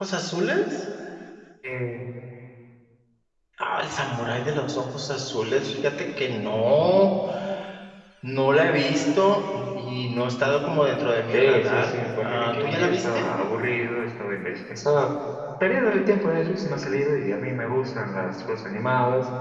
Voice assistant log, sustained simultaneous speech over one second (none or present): present